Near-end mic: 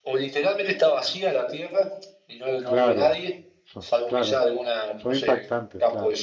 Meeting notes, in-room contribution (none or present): present